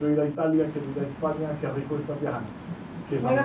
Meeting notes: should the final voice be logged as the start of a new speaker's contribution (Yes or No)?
Yes